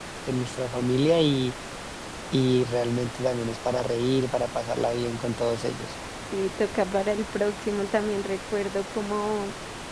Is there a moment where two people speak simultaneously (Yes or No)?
No